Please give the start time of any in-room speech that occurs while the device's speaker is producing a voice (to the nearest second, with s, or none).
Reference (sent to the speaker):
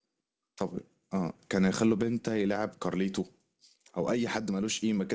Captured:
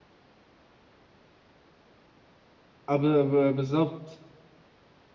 3 s